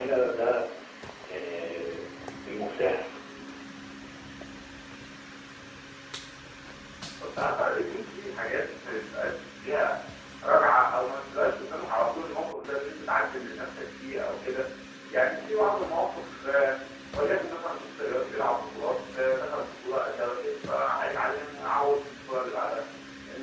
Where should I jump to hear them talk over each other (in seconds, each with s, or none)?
none